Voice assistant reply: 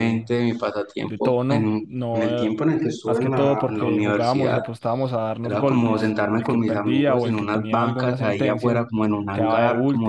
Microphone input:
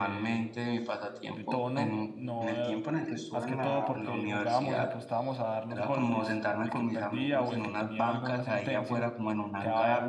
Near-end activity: none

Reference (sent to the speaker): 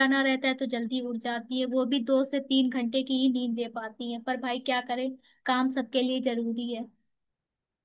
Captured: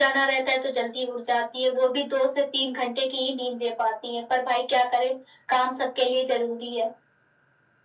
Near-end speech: none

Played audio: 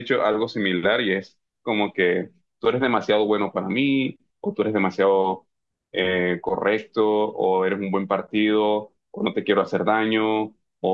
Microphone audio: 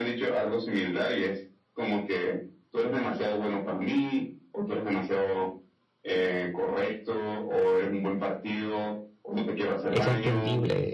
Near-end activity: present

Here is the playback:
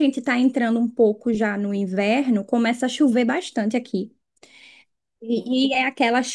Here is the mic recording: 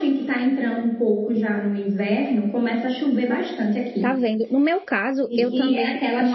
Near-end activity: present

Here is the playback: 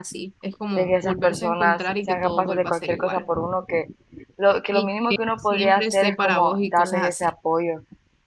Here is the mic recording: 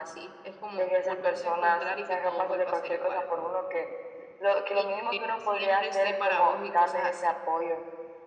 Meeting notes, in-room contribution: none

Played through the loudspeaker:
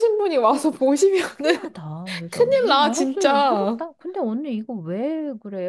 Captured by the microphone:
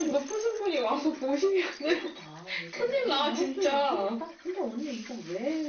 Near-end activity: none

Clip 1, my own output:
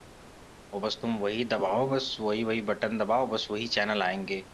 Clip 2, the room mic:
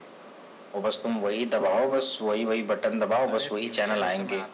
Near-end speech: present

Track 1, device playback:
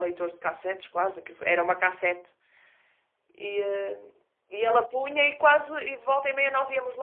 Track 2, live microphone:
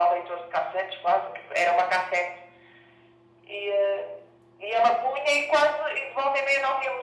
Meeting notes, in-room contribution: none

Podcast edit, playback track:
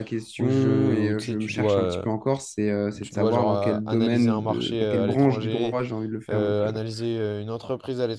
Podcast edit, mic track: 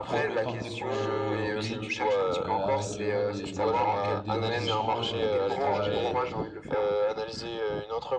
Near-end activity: present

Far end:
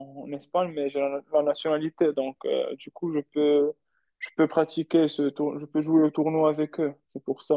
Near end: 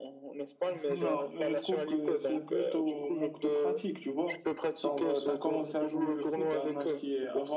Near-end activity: present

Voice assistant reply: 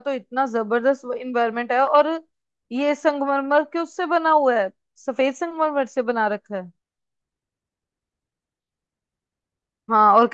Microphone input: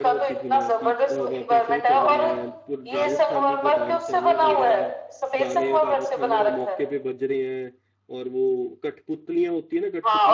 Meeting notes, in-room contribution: present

